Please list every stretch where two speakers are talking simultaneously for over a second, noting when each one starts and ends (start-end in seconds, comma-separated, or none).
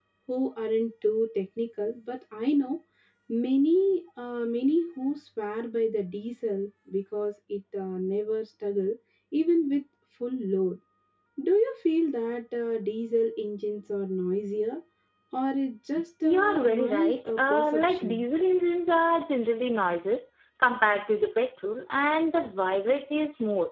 16.2-18.2